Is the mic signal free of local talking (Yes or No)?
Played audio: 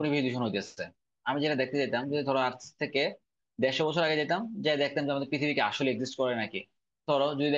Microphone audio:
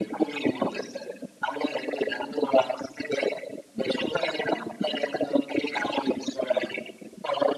Yes